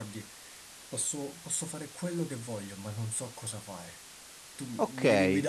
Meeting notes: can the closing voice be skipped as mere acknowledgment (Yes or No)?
No